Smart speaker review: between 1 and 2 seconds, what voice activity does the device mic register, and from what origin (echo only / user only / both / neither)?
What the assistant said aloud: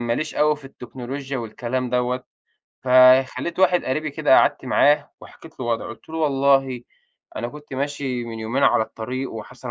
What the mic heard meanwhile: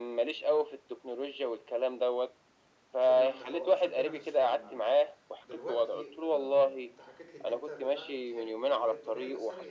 echo only